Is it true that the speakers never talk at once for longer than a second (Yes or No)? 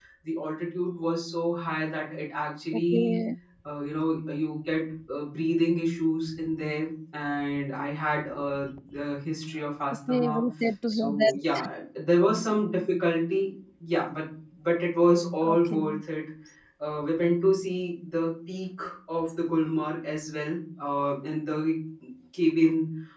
Yes